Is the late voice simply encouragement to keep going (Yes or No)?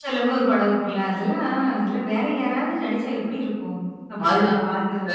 No